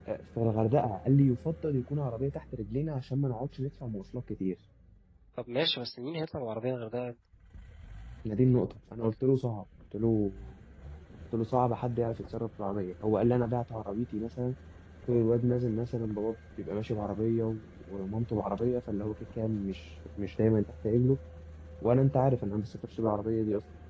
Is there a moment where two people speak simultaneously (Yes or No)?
No